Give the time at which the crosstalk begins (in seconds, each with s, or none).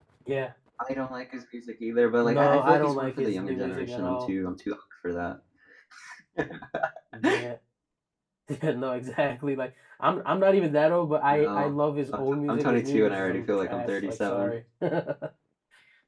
2.2 s